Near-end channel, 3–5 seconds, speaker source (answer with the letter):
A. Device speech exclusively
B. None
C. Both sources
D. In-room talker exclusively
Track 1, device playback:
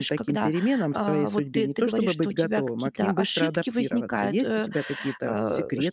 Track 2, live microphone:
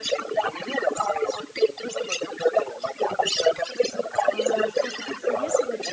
C